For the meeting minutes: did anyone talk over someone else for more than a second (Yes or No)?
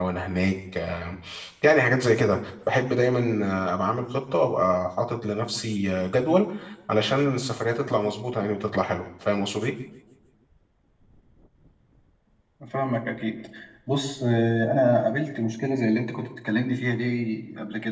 No